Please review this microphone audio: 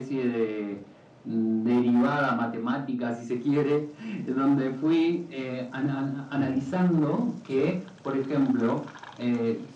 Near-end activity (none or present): present